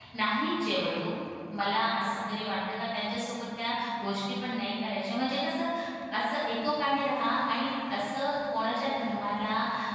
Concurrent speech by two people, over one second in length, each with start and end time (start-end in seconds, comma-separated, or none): none